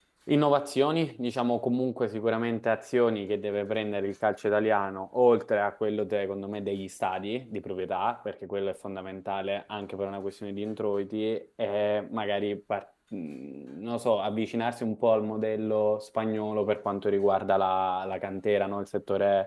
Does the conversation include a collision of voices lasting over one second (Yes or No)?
No